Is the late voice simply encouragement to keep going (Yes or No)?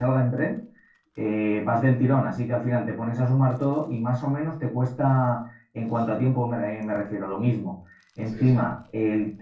Yes